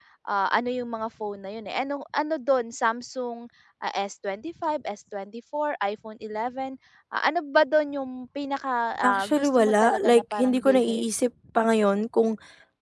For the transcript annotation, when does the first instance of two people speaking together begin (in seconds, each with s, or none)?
9.0 s